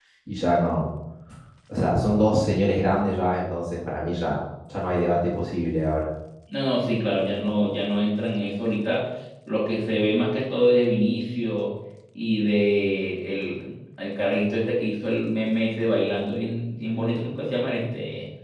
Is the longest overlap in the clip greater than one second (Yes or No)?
No